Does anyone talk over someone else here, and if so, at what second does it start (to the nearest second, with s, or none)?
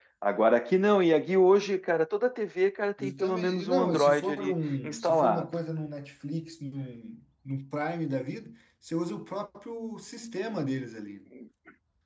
3 s